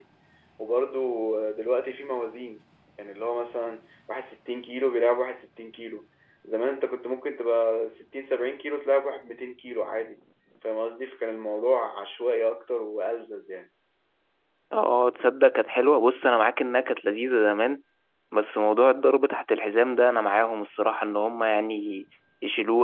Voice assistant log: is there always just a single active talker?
Yes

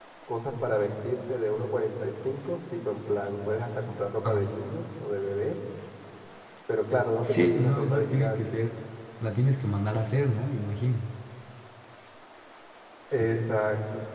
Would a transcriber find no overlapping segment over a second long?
No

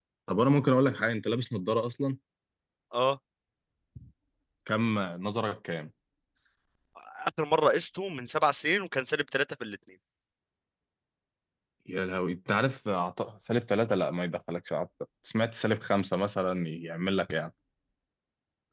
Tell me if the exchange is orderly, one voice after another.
Yes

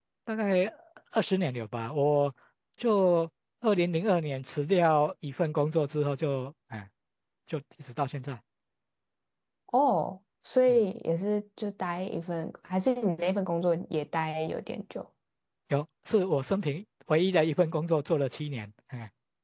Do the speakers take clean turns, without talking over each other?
Yes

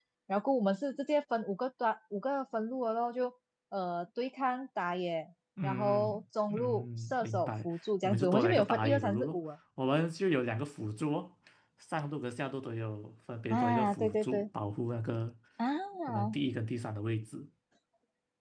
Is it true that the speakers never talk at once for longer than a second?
No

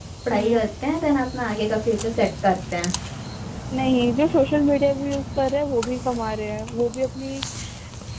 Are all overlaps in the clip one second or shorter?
Yes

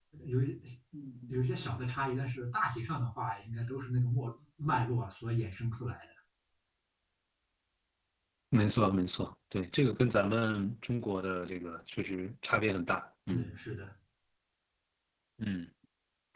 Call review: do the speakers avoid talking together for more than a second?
Yes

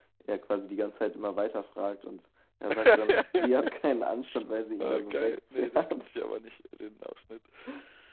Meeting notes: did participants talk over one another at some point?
Yes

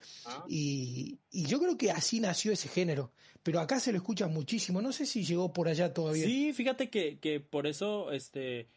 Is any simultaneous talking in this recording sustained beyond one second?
No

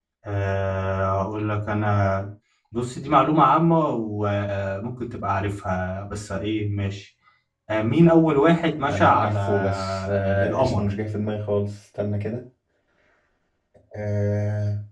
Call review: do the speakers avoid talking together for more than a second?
No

